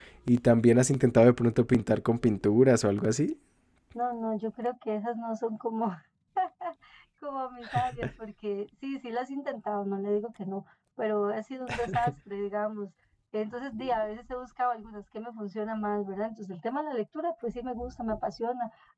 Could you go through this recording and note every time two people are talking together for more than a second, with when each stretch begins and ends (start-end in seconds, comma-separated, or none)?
none